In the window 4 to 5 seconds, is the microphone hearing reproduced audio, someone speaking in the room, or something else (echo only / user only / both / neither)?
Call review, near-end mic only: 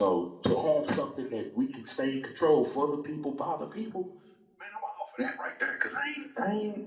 user only